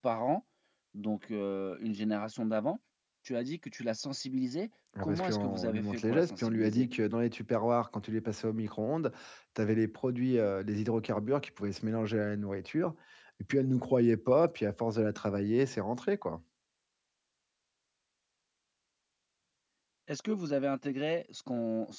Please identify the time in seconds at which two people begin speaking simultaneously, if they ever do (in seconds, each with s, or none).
5.0 s